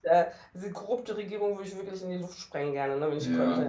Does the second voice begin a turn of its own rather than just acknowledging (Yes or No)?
Yes